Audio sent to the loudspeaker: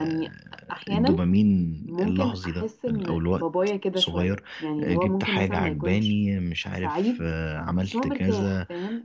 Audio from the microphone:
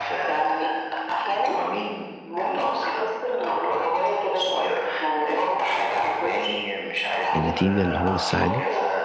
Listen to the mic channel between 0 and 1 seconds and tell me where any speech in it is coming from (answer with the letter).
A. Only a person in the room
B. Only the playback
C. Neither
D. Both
B